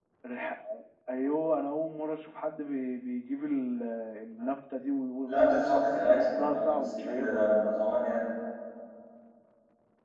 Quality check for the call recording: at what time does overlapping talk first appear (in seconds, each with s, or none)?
5.3 s